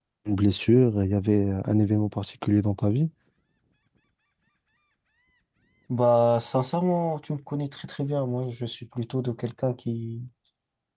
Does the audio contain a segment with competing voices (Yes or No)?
No